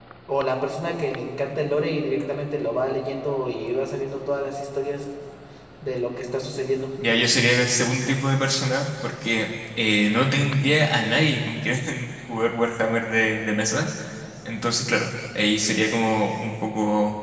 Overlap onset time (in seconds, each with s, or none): none